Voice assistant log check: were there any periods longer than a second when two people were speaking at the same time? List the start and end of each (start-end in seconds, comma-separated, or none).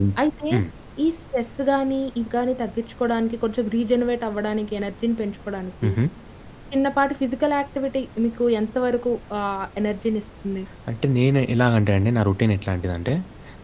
none